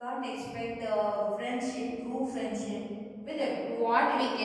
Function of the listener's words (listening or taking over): taking over